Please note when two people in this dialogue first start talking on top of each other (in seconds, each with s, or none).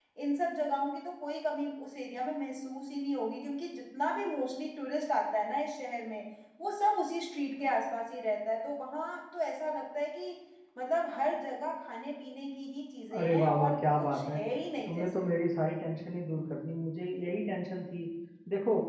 13.2 s